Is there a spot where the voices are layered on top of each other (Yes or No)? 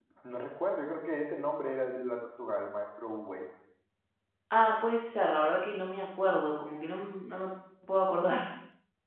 No